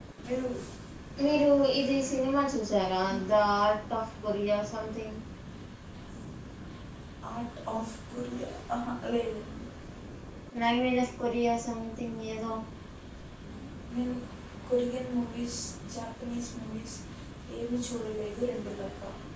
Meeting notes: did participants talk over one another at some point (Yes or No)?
No